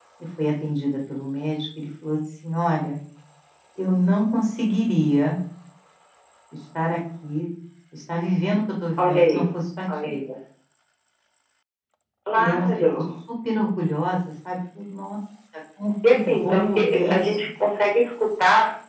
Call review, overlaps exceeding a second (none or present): present